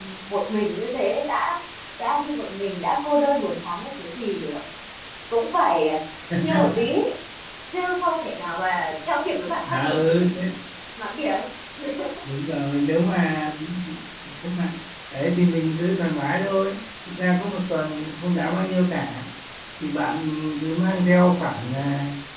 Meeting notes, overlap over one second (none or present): none